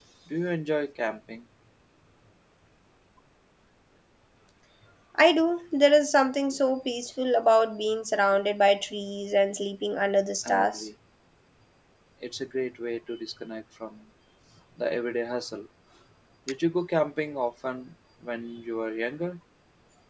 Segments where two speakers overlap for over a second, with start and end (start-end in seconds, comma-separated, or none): none